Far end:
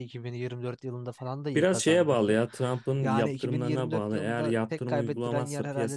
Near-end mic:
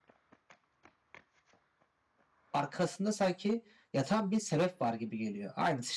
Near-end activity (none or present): present